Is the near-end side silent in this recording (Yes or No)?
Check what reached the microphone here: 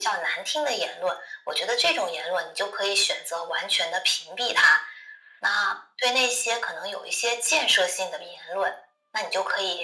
Yes